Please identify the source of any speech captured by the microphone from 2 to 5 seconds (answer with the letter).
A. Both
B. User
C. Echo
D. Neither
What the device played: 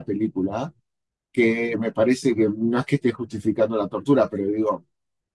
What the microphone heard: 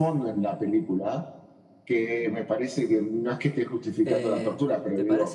A